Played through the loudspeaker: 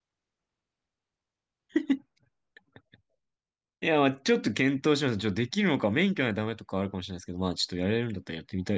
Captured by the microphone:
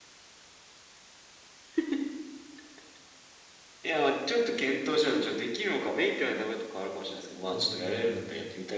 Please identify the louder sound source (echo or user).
echo